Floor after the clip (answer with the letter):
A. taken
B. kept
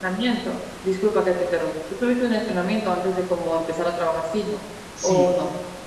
A